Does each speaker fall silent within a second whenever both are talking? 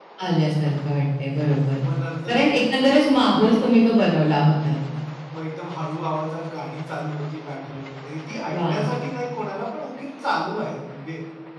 Yes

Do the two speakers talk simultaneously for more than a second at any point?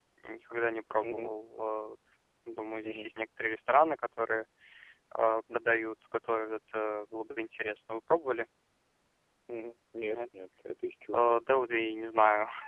No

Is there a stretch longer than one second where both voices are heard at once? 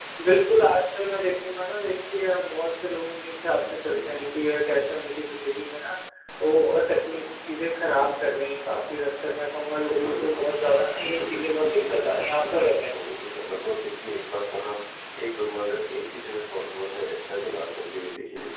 Yes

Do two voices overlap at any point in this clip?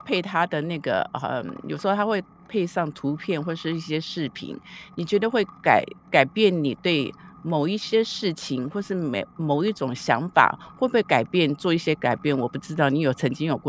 No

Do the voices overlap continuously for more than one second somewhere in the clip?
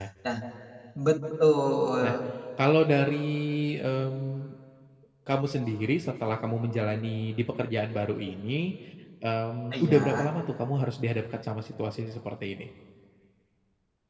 No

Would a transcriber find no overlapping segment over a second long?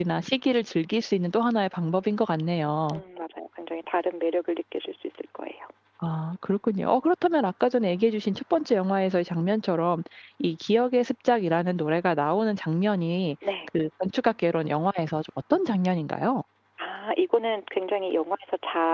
Yes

